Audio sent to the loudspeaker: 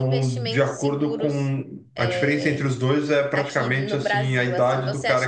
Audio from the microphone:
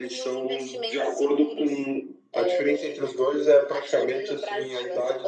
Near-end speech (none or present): none